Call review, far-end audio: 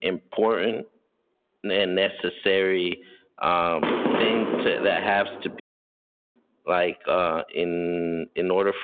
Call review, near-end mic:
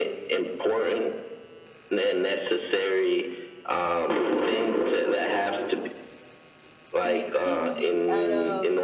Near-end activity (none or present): present